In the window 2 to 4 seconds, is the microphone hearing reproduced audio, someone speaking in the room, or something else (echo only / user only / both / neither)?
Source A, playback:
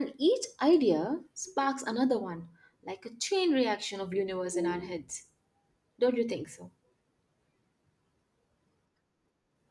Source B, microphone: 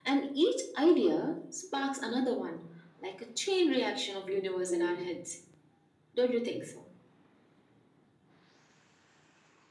echo only